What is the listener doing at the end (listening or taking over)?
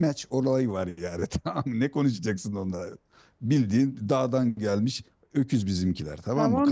taking over